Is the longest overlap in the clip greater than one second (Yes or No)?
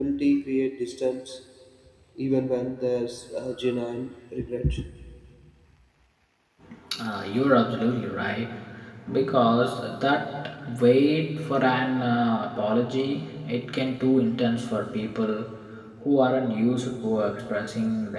No